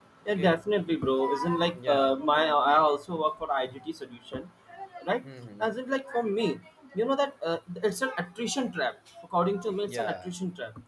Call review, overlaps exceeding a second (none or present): none